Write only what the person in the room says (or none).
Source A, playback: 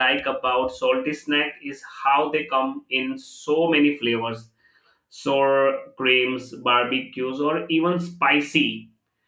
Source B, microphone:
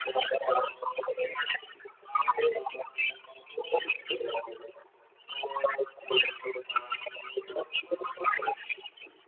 none